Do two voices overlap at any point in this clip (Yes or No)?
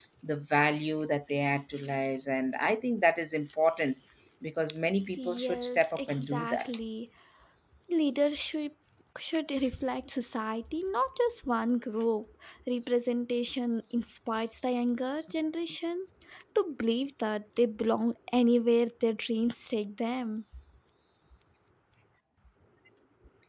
Yes